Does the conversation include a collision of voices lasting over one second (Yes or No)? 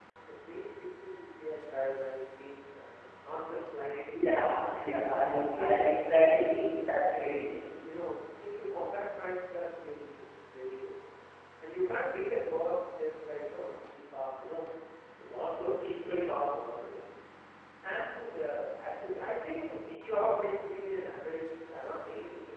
Yes